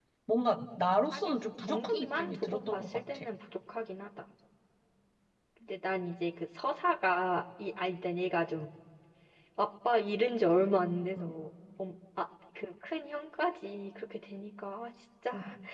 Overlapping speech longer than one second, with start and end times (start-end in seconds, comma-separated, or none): 1.1-3.2